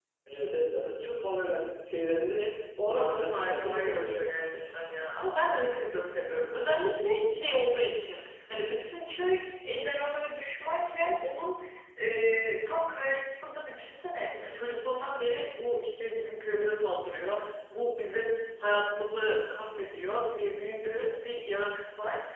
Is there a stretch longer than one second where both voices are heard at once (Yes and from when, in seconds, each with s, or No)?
Yes, from 2.9 s